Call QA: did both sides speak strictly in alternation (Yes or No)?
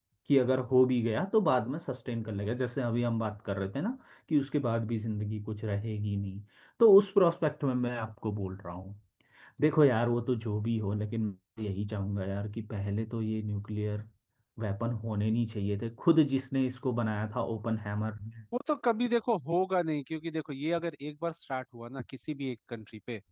Yes